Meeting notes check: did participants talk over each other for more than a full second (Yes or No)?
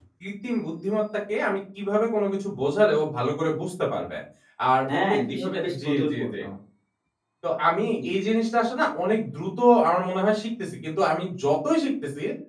Yes